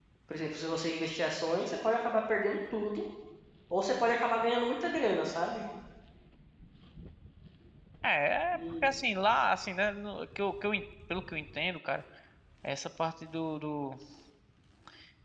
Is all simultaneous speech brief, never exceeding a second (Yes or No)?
Yes